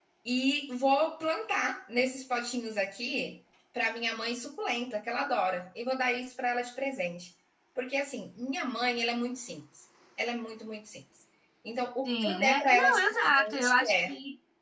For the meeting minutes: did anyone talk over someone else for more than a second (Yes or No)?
Yes